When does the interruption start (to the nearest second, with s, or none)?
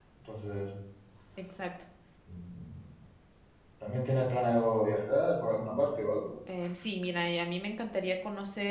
none